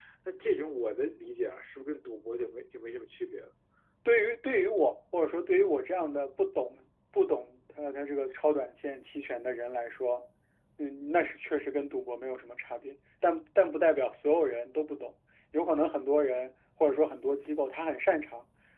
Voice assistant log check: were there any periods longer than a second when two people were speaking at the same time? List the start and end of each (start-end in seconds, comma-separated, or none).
none